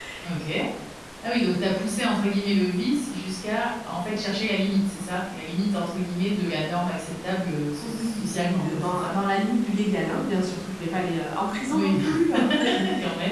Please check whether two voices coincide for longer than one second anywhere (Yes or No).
Yes